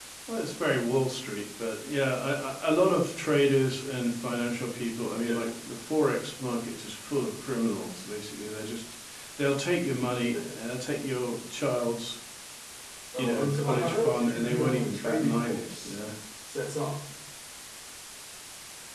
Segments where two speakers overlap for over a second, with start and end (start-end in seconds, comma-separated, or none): 13.2-16.0